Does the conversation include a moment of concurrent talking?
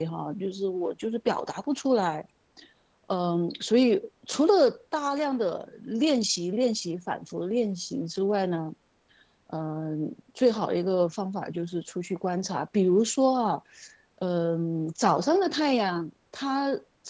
No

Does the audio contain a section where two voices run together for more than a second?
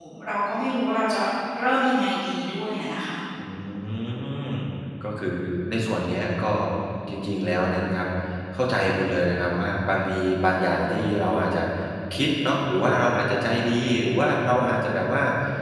No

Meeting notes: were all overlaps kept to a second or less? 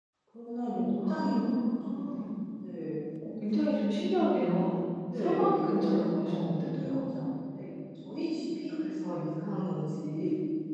No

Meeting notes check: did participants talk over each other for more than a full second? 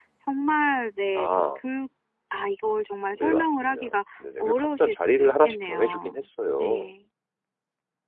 Yes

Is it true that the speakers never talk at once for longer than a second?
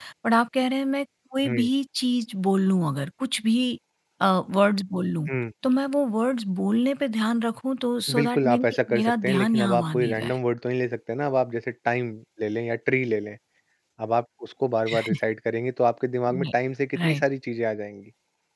No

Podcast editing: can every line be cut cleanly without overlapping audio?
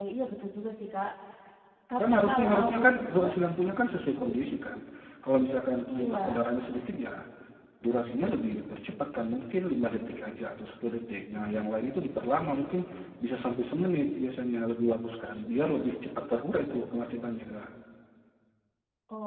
No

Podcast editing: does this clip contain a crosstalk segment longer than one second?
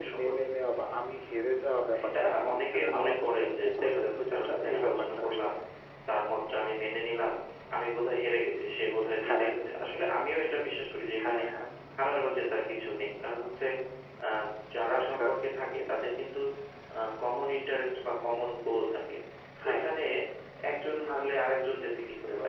Yes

